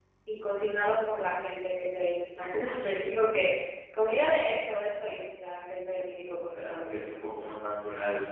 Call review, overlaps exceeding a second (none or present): none